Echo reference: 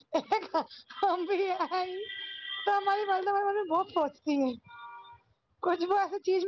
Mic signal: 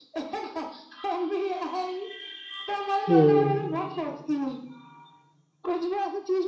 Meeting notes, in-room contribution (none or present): present